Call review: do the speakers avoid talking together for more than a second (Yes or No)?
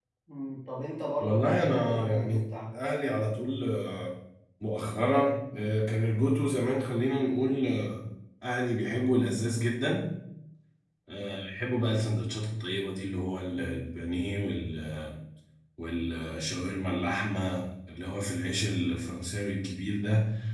No